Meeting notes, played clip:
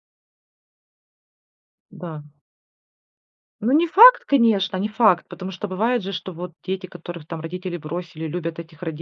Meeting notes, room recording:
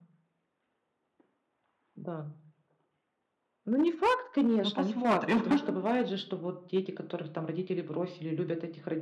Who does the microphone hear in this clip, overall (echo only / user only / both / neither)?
both